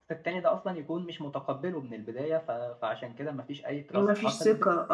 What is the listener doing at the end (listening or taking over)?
taking over